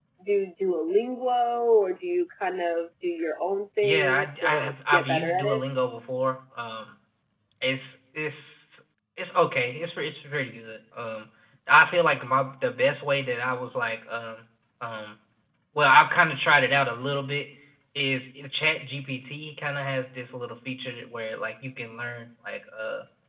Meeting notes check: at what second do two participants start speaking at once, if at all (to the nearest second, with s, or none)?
4 s